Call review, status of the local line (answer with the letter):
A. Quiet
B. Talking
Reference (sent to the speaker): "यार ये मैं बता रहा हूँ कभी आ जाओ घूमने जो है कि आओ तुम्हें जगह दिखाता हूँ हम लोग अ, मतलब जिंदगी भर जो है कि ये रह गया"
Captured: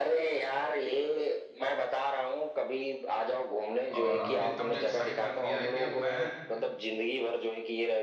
B